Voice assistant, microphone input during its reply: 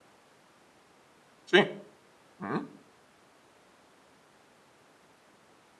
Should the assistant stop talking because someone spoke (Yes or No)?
Yes